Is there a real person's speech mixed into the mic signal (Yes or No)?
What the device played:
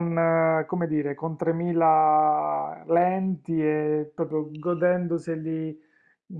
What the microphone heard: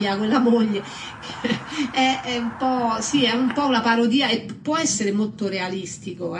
Yes